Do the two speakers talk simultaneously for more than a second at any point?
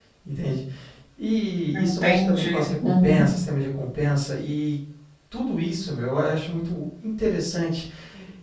Yes, from 1.7 s

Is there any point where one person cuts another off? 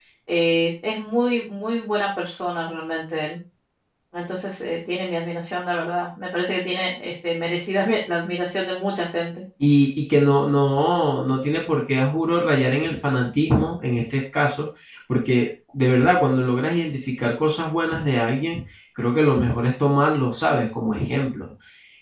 No

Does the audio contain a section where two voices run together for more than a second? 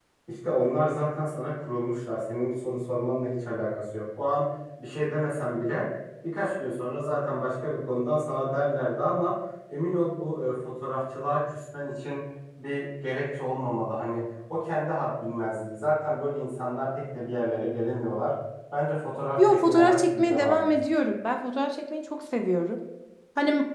Yes, from 19.4 s

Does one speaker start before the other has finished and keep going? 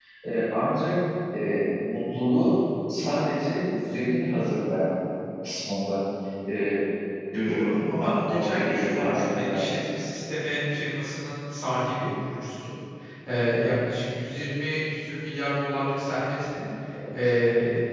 Yes, from 7.5 s

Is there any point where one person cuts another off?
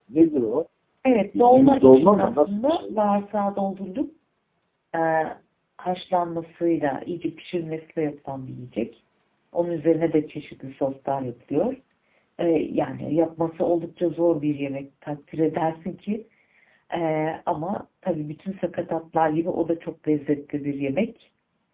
Yes, from 1.4 s

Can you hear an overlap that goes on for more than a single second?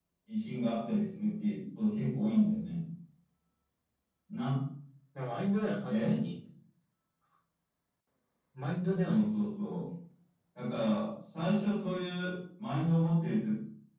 No

